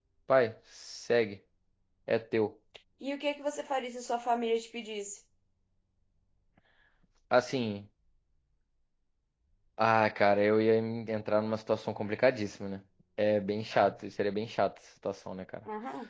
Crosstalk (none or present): none